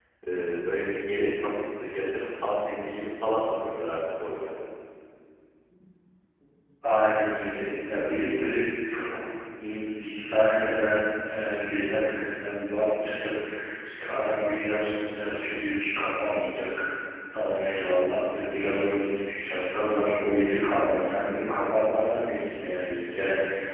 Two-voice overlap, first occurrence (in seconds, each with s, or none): none